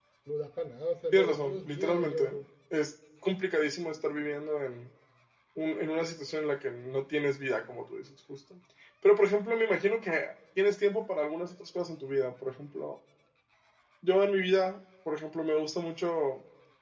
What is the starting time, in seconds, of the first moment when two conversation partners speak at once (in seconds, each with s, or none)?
1.1 s